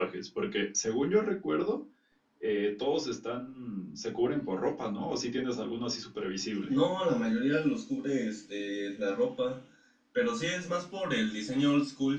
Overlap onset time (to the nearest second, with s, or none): none